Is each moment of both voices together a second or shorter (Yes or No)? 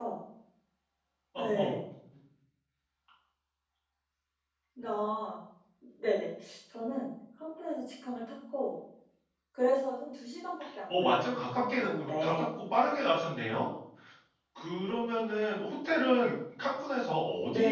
No